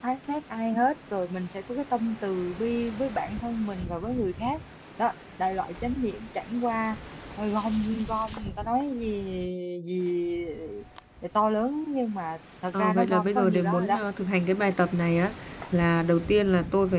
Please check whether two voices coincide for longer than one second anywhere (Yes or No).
Yes